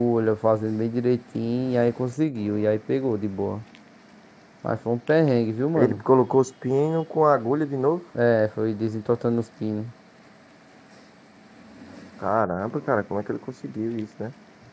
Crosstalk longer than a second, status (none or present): none